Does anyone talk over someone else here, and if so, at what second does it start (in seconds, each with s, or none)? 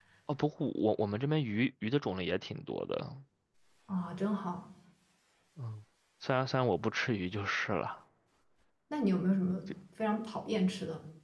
none